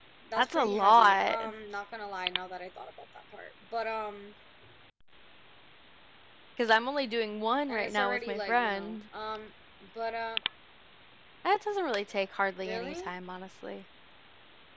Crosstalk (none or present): present